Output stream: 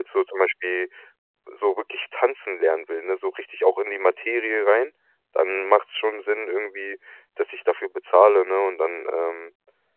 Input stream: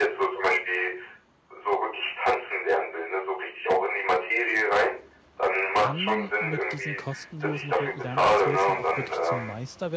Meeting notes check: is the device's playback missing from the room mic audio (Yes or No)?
No